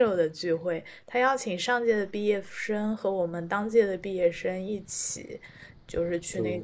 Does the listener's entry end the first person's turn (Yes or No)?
No